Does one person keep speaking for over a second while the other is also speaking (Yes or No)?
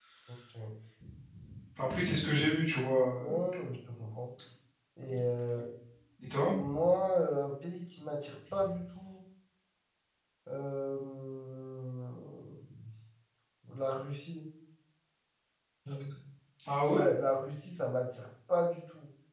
No